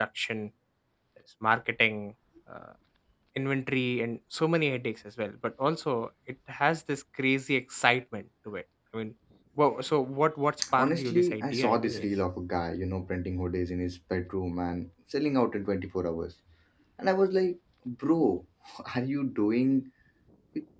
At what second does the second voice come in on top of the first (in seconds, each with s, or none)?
10.6 s